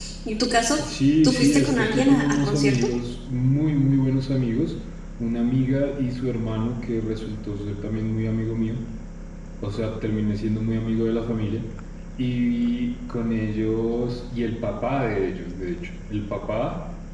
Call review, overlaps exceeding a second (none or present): present